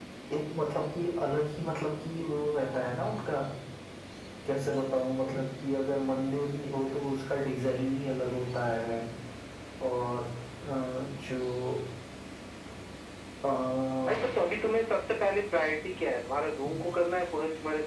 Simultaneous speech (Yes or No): No